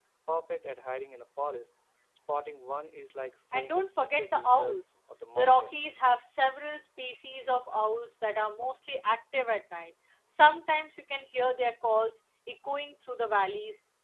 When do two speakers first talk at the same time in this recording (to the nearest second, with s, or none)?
4 s